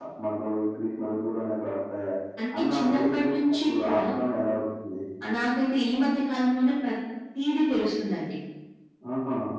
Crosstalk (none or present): present